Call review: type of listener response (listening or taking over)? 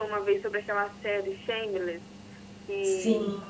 listening